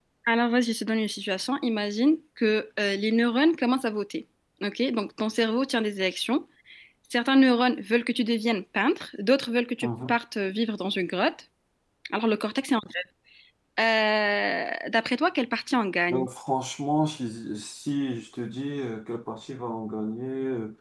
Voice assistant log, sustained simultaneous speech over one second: none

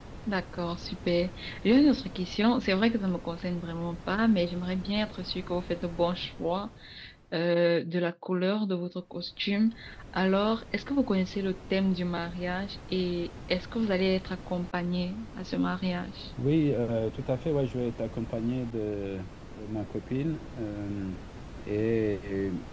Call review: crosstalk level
none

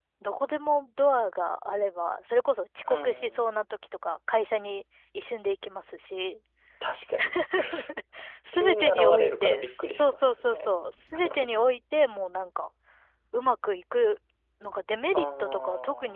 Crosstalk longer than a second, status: present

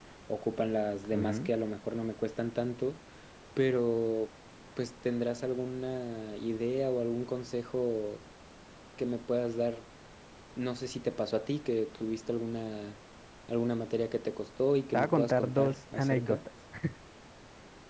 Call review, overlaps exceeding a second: present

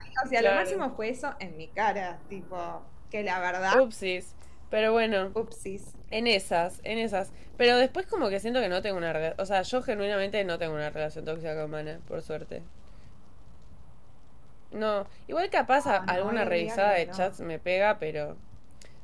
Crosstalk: present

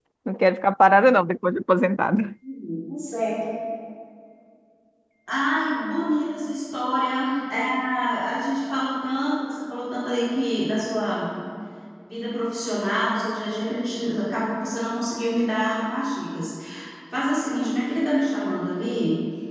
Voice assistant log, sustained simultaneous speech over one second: none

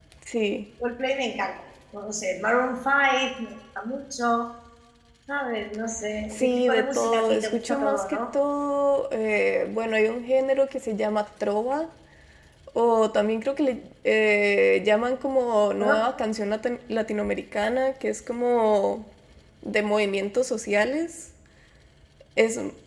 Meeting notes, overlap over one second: present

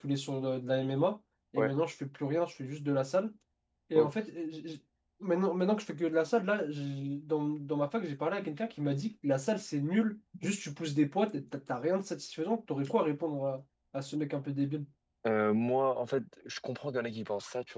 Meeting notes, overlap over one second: none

